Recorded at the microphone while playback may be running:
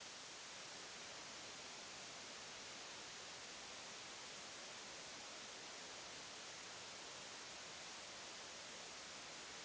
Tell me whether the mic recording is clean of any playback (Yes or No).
Yes